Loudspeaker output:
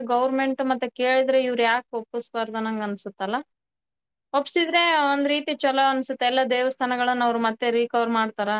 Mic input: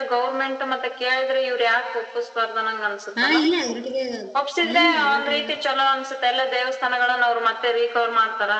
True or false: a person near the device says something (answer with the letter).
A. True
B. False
A